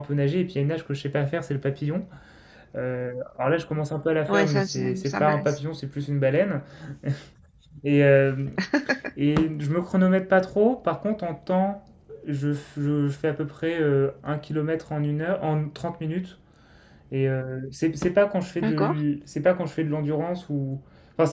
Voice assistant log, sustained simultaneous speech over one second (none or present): present